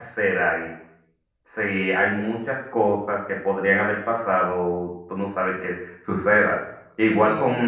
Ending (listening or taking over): listening